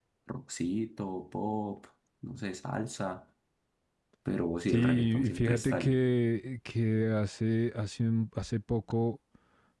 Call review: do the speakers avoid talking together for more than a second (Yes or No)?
No